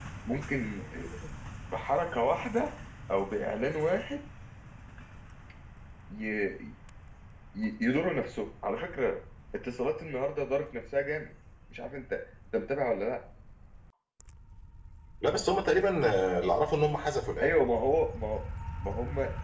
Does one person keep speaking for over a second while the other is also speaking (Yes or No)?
No